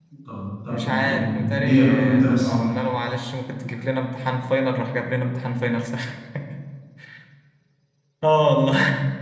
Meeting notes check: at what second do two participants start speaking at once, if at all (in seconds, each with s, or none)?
0.7 s